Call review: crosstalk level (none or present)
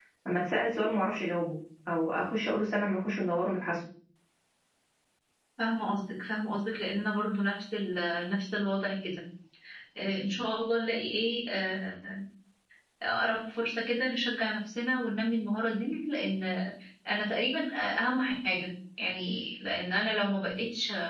none